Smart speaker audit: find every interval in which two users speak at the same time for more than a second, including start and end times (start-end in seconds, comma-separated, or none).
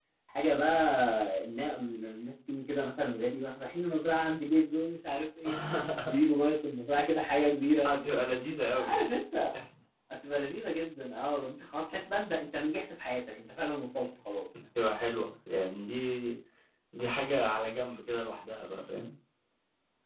none